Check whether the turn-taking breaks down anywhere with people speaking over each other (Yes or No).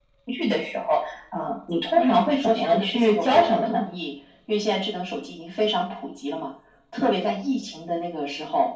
Yes